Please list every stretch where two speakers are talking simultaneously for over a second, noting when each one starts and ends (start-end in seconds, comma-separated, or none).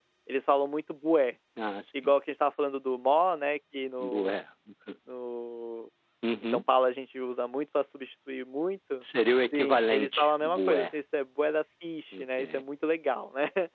9.5-10.9